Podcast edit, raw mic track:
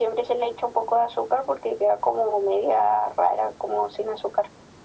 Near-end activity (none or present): none